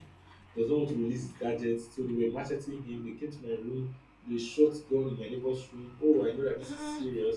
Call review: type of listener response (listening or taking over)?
listening